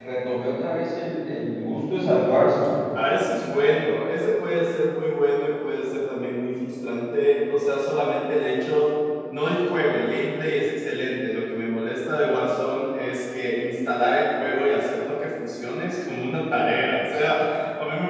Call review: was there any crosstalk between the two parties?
No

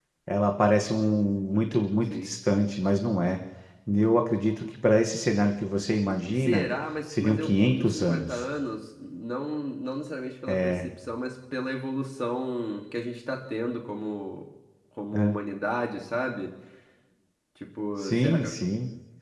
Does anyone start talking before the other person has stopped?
Yes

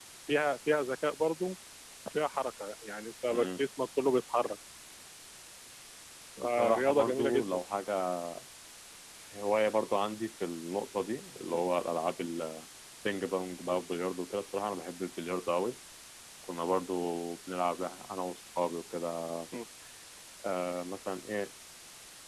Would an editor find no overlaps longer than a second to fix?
No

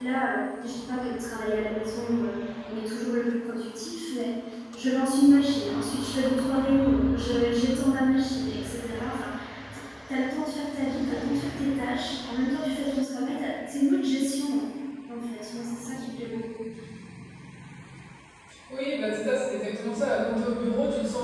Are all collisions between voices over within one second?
Yes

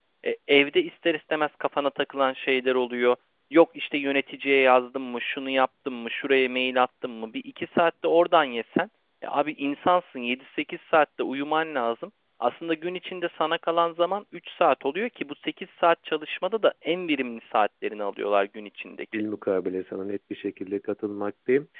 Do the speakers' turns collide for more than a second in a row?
No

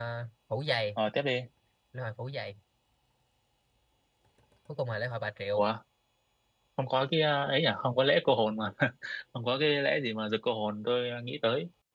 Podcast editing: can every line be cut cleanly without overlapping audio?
Yes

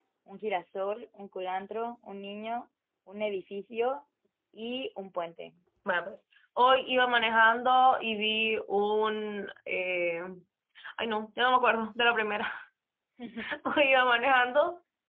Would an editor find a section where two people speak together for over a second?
No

